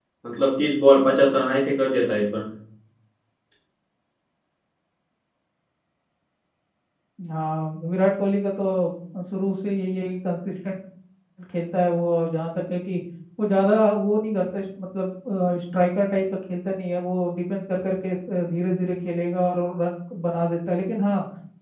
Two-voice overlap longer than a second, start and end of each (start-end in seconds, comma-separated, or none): none